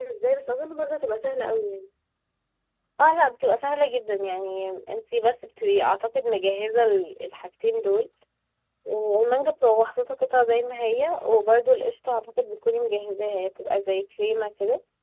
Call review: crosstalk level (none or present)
none